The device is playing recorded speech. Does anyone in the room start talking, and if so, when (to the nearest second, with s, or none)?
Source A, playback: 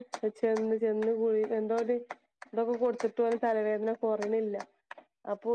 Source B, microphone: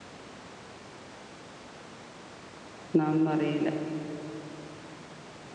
3 s